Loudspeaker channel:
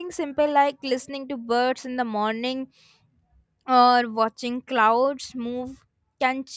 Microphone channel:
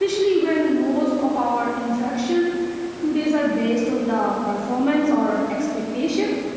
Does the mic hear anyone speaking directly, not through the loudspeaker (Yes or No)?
Yes